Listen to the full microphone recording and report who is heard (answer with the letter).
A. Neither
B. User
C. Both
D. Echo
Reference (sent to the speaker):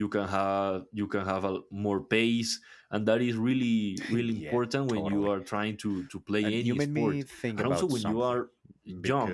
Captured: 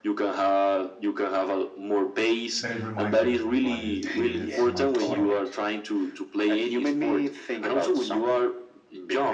C